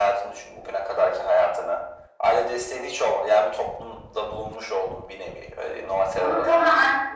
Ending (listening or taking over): taking over